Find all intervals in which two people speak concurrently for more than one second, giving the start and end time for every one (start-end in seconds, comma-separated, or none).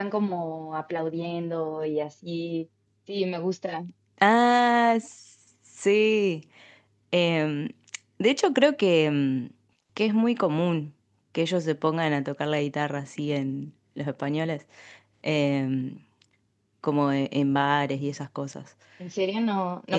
none